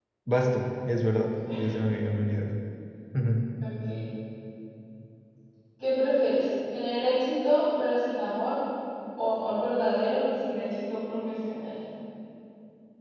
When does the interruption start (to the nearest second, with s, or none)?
none